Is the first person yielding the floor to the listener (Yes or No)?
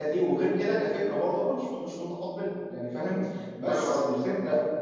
No